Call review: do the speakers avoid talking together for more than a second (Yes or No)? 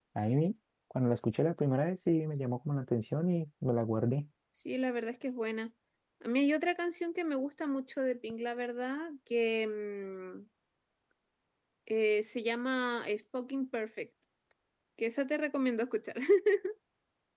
Yes